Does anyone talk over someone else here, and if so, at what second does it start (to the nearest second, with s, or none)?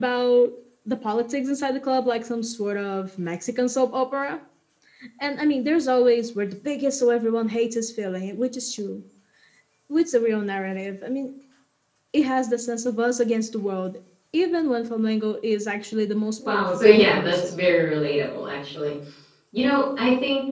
16 s